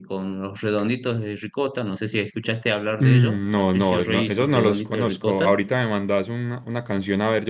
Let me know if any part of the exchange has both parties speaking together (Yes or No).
Yes